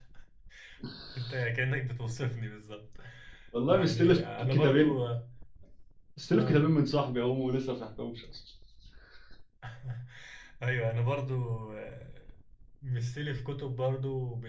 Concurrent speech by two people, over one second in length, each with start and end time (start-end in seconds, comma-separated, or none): 3.7-5.0